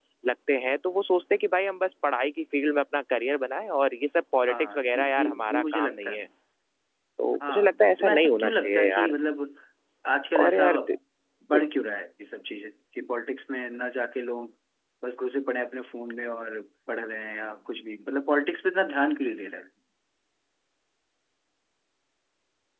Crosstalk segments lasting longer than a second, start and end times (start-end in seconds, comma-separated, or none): 4.5-6.2, 7.5-9.1